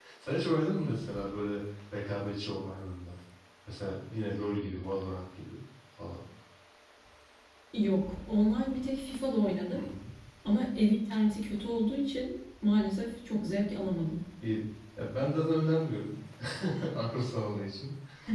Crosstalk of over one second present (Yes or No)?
No